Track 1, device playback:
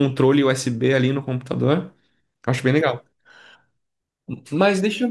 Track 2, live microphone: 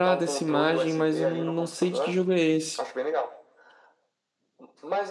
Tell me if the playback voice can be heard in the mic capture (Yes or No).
Yes